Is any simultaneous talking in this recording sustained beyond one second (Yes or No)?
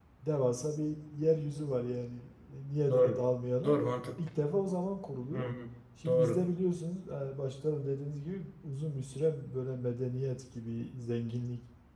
No